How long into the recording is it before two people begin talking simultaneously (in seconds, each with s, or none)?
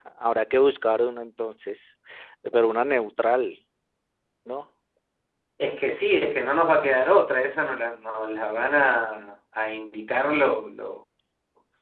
none